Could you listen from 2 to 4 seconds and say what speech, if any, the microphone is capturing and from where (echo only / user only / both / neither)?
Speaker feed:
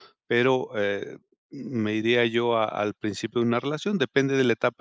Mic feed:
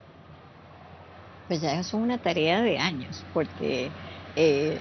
user only